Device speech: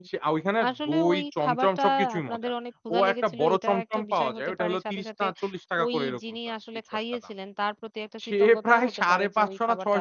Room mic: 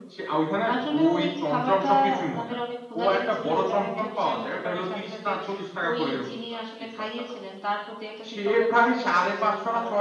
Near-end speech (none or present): none